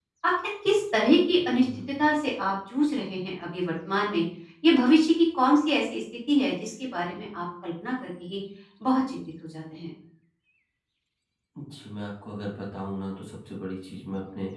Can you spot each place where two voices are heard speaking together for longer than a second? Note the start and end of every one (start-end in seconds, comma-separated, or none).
none